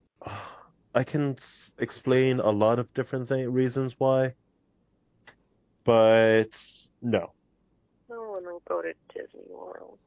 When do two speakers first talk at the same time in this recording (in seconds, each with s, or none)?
none